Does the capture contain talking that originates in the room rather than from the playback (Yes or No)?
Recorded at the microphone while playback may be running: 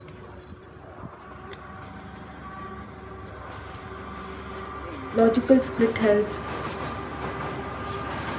Yes